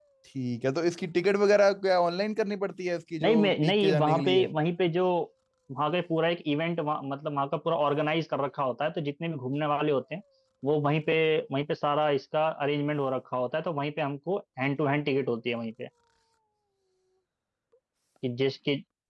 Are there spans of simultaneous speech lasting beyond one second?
Yes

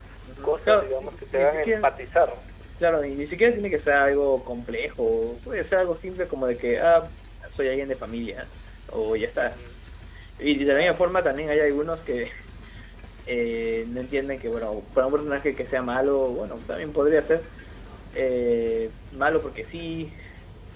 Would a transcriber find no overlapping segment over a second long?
No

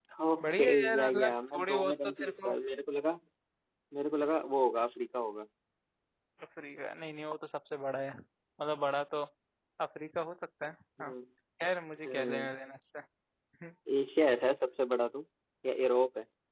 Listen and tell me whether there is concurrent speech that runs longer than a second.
Yes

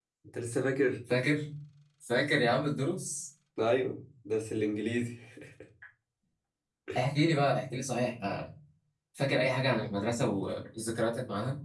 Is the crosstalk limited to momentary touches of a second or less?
Yes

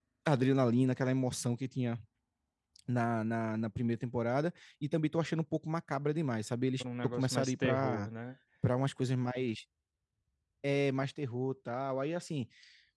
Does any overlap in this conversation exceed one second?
Yes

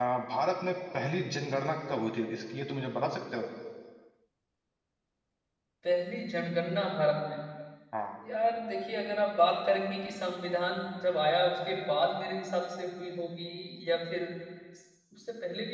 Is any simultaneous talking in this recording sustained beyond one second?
No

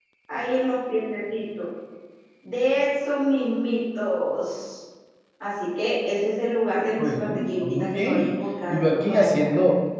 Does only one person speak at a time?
No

